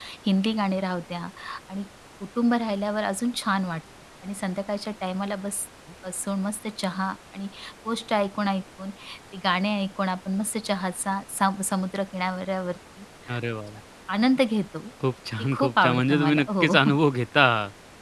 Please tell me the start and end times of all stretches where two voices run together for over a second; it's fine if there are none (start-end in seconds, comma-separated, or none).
15.4-16.7